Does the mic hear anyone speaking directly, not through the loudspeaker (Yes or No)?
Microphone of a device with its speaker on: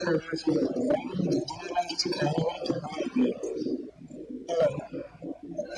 No